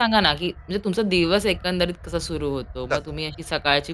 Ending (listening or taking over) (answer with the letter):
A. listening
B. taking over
A